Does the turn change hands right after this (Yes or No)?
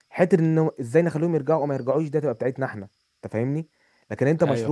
No